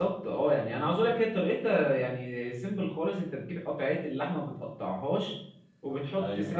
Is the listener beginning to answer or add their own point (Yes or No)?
No